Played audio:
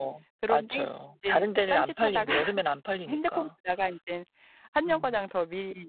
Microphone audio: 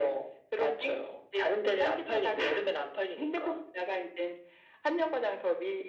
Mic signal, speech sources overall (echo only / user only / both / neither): echo only